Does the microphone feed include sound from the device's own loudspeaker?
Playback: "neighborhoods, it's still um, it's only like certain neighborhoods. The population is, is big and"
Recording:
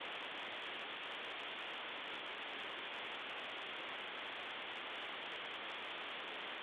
No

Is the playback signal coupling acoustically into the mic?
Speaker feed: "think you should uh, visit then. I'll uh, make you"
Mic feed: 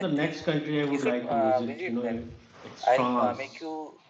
Yes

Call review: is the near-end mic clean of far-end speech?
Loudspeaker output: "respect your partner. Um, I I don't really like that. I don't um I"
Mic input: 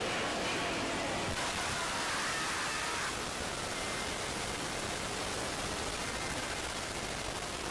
Yes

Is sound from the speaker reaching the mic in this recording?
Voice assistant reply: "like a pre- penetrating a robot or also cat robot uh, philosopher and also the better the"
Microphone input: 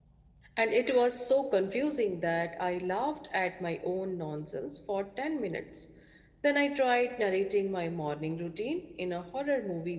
No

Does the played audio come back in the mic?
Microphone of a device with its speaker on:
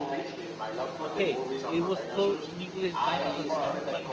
Yes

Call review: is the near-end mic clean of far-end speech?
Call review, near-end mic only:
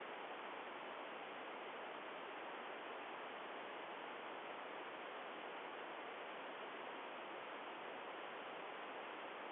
Yes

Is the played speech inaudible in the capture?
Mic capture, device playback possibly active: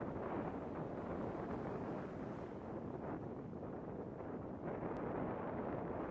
Yes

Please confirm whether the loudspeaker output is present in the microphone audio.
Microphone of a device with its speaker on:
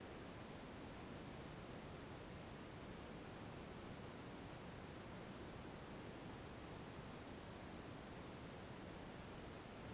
No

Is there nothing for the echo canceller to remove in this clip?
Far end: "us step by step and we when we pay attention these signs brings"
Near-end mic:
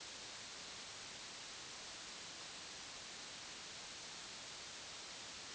Yes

